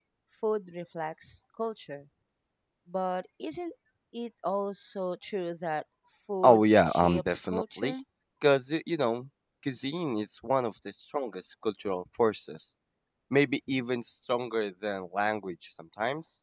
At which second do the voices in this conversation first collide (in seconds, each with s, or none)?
6.4 s